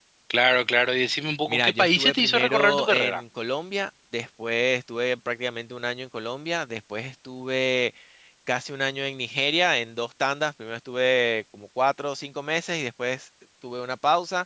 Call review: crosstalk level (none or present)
present